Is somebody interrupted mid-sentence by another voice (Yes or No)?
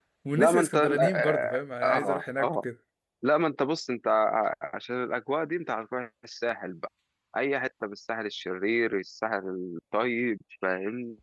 Yes